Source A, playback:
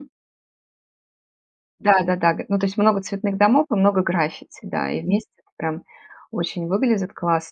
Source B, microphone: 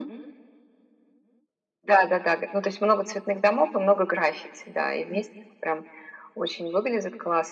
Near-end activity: none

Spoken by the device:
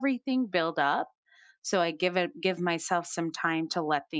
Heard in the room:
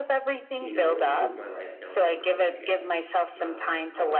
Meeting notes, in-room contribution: present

